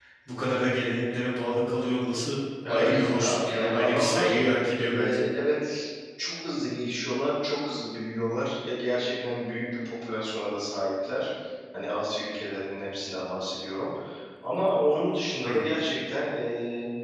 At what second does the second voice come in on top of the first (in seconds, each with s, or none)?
2.7 s